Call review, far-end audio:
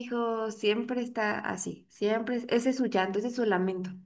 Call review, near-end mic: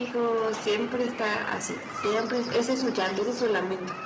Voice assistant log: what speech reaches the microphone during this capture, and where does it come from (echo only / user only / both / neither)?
echo only